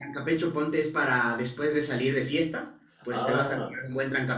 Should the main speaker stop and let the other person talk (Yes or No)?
No